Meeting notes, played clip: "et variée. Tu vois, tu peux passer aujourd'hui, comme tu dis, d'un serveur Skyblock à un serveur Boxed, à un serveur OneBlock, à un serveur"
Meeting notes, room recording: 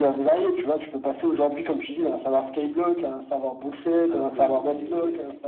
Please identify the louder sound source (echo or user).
echo